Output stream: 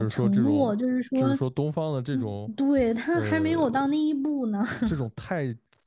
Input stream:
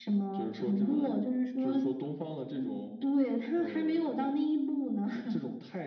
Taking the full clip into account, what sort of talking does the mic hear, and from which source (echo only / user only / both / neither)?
echo only